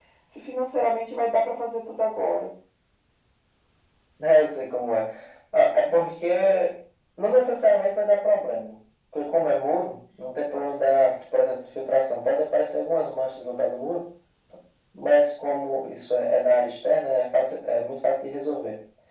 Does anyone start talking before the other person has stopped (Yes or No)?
No